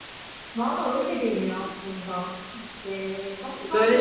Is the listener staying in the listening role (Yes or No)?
No